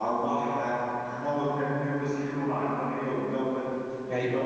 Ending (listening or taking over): listening